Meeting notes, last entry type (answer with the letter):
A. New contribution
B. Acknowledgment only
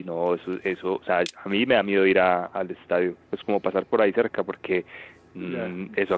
B